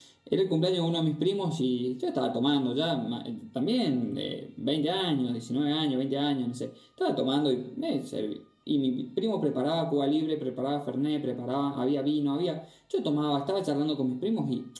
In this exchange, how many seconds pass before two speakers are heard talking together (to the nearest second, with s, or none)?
none